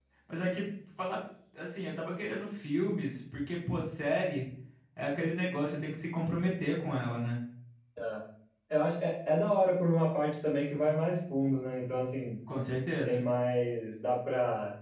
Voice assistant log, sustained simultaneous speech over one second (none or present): none